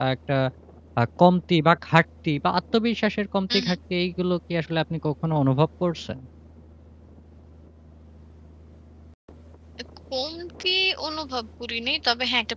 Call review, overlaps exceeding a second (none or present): none